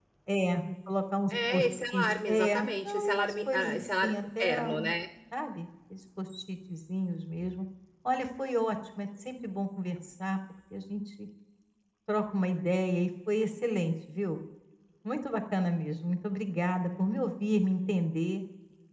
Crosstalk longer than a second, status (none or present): present